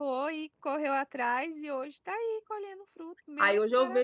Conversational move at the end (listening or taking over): taking over